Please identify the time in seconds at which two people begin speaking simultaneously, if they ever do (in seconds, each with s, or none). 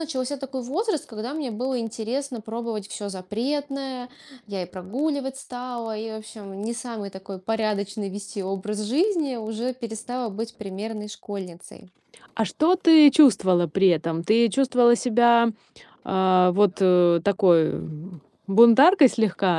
none